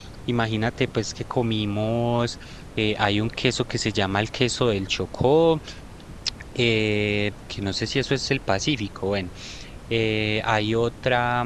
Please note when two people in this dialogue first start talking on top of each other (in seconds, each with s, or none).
none